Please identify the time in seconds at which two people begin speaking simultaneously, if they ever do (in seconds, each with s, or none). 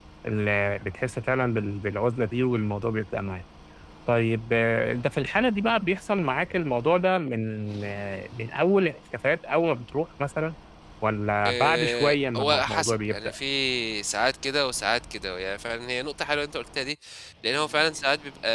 11.5 s